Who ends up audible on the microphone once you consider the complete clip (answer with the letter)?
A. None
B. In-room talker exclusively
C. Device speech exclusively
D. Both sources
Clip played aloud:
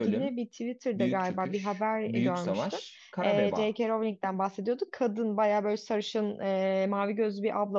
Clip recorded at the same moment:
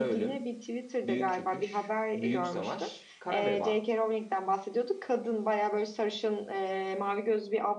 C